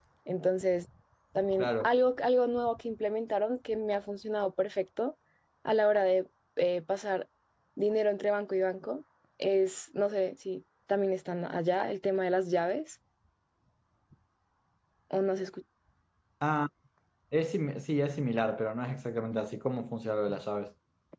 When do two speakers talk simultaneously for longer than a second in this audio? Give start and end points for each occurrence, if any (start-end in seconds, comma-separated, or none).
none